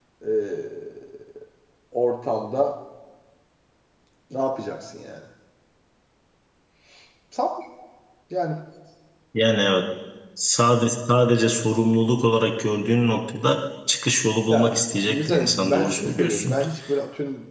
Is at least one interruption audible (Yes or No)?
Yes